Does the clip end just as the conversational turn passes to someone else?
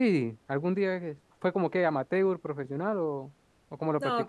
Yes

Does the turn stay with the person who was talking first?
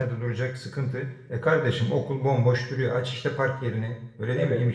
Yes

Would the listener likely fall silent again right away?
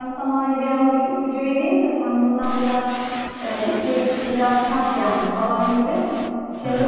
Yes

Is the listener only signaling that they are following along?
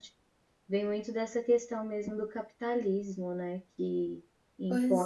Yes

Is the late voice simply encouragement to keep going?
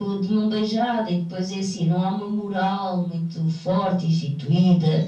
No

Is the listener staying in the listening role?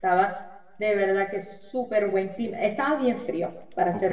Yes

